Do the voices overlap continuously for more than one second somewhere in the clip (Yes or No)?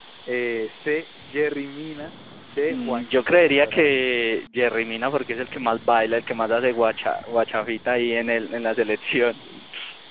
Yes